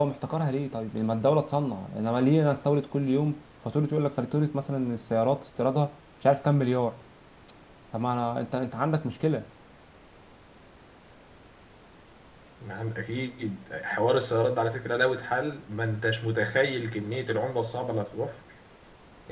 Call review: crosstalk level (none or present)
none